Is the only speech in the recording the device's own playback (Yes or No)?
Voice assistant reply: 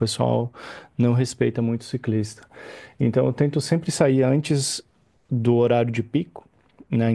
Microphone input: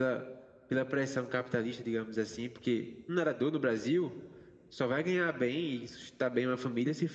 No